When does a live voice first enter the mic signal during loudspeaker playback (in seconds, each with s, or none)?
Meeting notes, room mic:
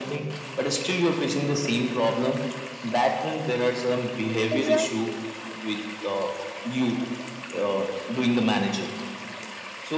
4.5 s